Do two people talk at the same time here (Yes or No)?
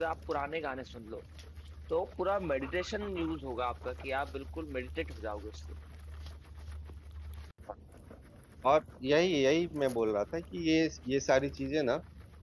No